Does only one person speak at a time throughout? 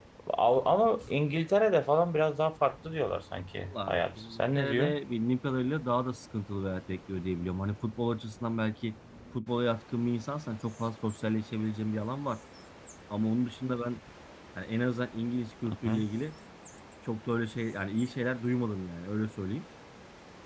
No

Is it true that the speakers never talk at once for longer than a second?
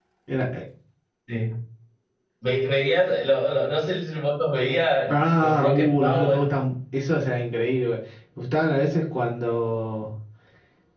No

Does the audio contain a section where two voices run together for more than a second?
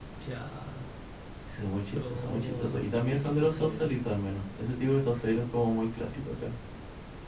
Yes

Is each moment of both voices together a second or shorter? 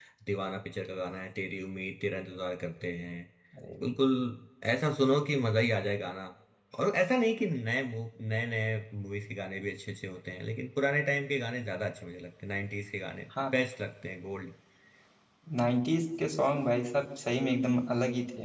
Yes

